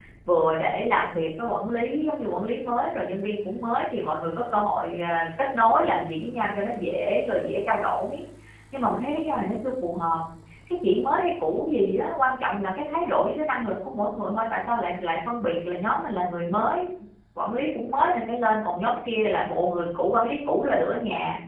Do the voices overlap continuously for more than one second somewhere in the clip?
No

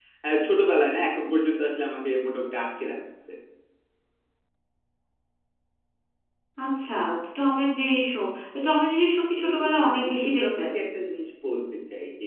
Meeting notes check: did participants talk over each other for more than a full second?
Yes, from 9.4 s

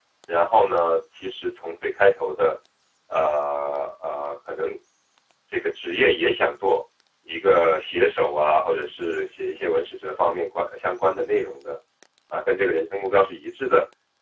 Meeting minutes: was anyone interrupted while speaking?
No

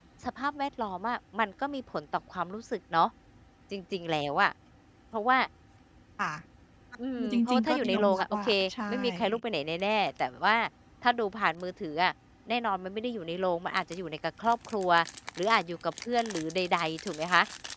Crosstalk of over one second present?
Yes, from 7.2 s

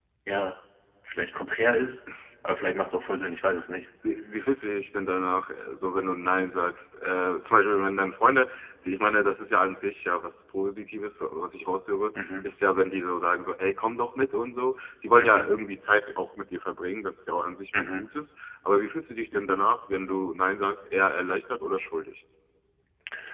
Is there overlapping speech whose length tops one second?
No

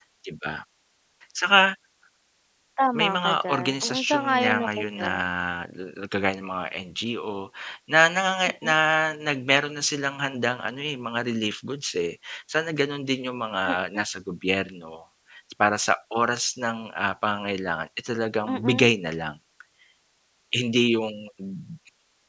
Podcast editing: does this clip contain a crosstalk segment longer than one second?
Yes, from 2.9 s

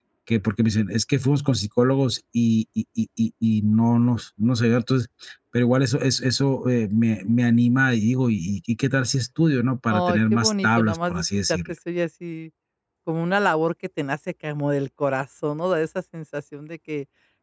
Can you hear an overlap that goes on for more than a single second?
Yes, from 9.9 s

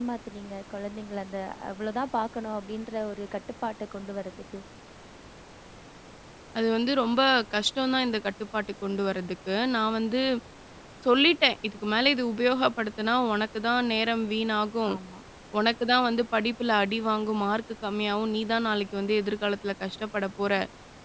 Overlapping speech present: No

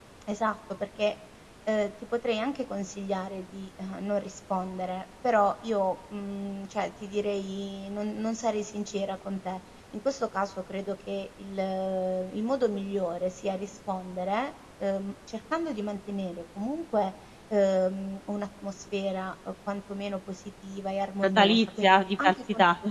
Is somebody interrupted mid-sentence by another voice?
Yes, from 21.2 s

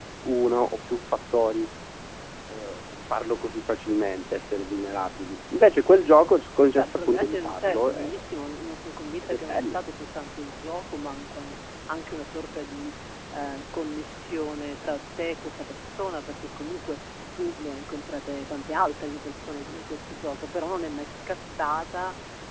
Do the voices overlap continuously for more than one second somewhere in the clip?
Yes, from 6.8 s

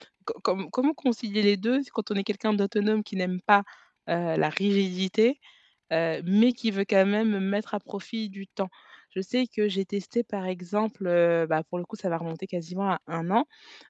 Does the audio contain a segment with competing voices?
No

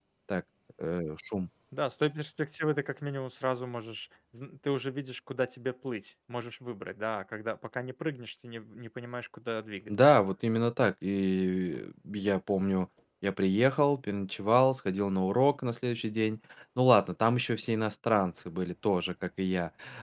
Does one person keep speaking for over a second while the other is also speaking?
No

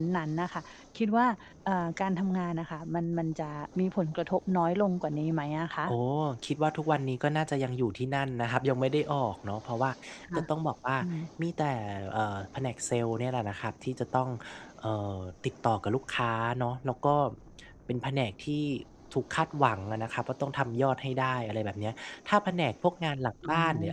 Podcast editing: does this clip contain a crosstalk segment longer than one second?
No

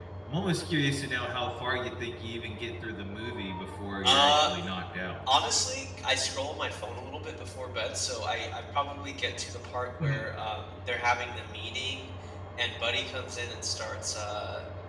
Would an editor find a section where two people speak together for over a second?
No

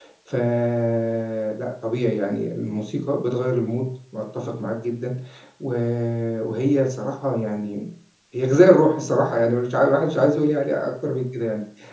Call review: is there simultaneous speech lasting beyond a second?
No

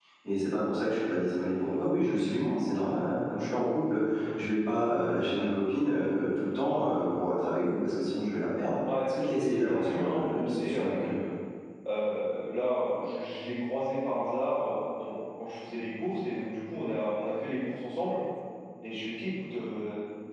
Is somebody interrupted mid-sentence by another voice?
Yes, from 8.8 s

